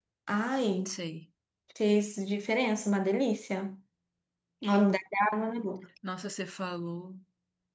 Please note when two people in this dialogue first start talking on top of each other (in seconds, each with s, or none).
none